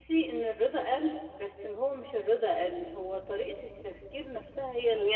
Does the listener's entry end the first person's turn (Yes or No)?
Yes